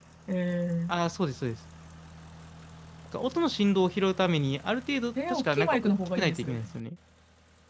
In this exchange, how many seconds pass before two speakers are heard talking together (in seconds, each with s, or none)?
5.2 s